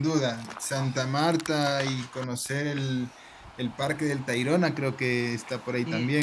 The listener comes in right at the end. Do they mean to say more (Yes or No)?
Yes